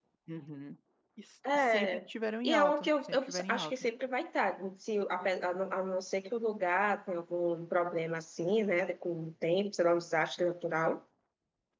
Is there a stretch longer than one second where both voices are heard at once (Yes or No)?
Yes